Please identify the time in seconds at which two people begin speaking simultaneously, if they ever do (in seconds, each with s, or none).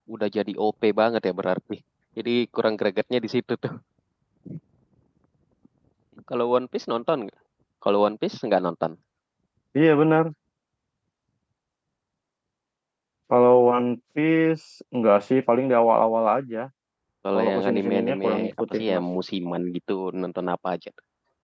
17.3 s